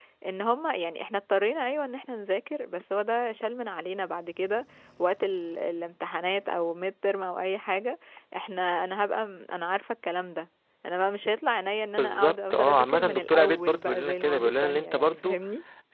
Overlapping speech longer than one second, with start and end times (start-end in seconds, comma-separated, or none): 12.0-15.4